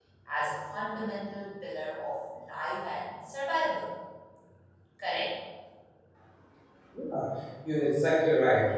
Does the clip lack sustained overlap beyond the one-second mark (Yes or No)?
Yes